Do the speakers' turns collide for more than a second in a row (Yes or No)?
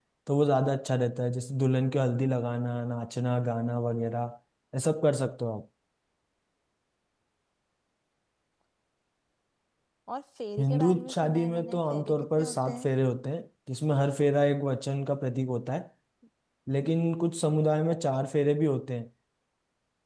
Yes